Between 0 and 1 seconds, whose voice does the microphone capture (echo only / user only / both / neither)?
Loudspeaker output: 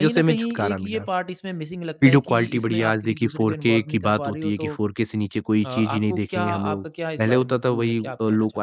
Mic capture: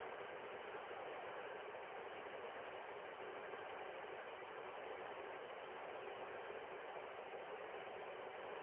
neither